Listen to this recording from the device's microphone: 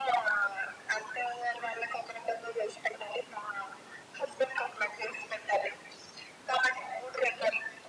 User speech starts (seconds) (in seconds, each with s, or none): none